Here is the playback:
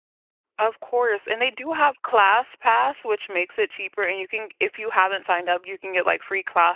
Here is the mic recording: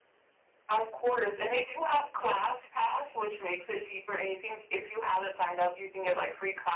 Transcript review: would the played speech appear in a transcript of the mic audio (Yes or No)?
Yes